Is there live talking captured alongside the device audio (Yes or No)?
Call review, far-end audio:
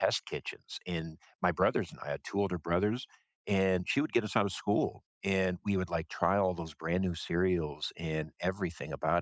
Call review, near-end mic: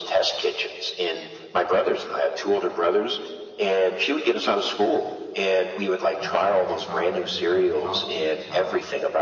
Yes